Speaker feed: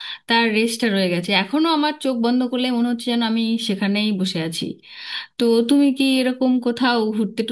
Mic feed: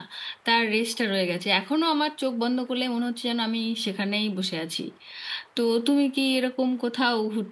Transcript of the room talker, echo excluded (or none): none